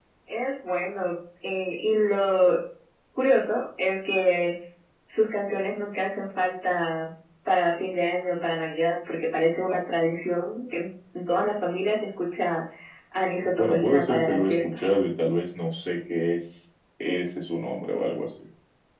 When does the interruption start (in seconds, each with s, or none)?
13.6 s